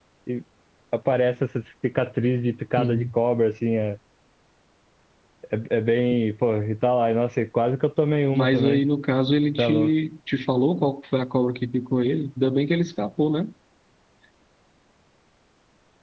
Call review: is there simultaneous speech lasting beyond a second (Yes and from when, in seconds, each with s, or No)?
No